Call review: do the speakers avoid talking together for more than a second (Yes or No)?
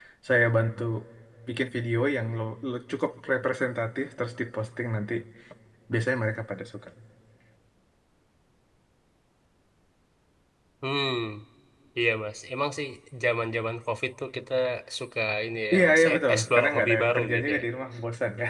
No